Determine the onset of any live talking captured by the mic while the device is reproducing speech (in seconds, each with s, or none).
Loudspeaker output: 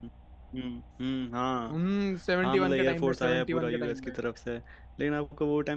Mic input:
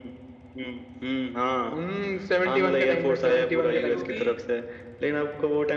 3.6 s